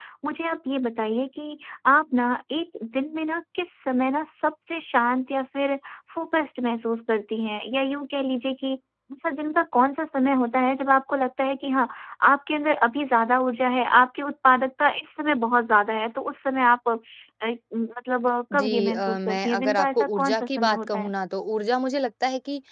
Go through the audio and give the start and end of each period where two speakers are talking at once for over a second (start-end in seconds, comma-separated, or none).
18.5-21.1